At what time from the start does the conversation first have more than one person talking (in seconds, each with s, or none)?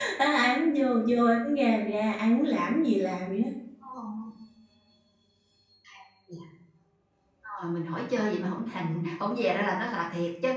none